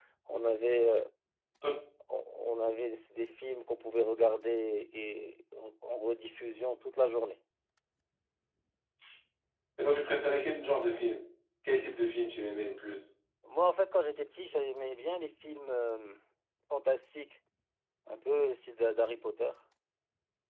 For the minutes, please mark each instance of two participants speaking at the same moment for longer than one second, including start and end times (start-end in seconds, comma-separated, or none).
none